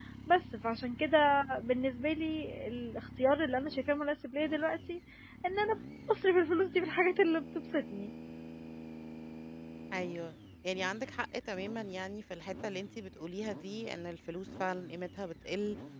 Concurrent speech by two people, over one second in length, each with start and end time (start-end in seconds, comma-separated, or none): none